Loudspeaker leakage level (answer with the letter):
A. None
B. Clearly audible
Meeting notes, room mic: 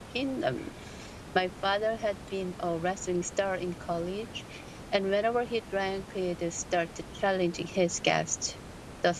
A